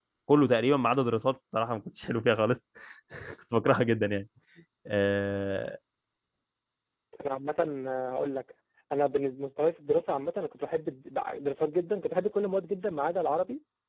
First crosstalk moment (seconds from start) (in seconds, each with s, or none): none